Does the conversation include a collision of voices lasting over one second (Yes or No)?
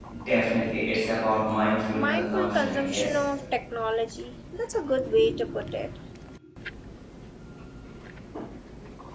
Yes